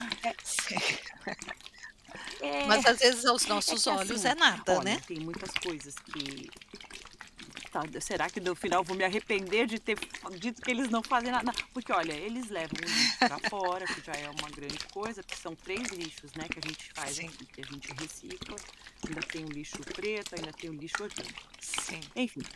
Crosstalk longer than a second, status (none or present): present